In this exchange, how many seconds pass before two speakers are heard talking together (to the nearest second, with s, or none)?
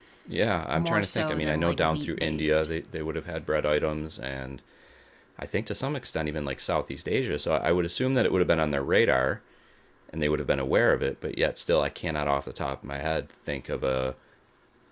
1 s